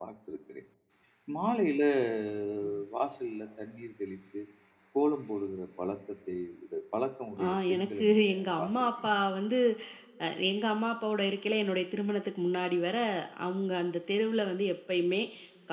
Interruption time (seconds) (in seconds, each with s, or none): 7.4 s